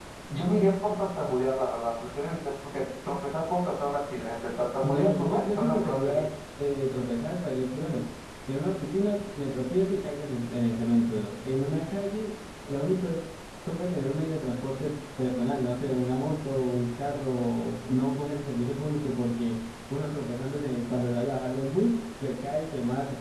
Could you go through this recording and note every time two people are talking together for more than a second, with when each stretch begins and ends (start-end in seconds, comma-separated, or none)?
4.8-6.3